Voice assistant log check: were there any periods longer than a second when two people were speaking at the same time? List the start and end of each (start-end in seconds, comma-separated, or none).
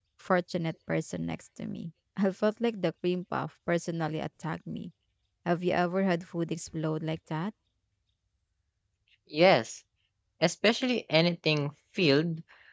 none